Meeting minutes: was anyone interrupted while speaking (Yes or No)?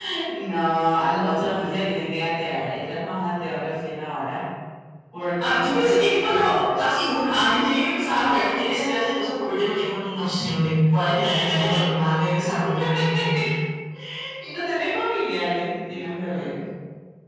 Yes